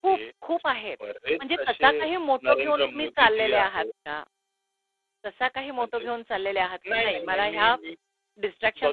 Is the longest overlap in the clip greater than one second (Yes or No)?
Yes